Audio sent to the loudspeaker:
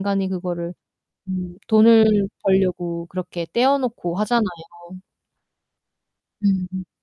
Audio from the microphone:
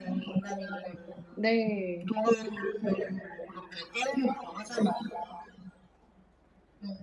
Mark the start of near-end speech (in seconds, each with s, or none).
1.4 s